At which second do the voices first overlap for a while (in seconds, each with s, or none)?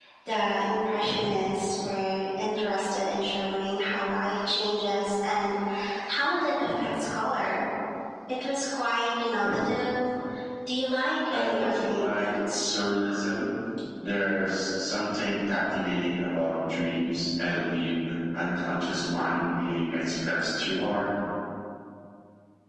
11.3 s